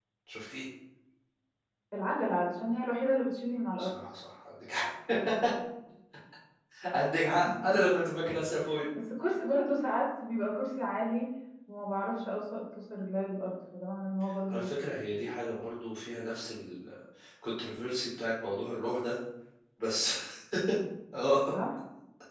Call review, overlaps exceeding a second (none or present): none